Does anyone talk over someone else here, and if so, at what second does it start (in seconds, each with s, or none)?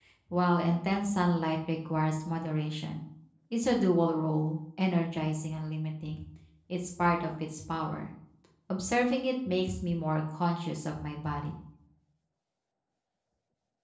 none